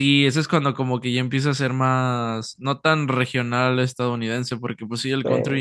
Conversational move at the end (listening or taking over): listening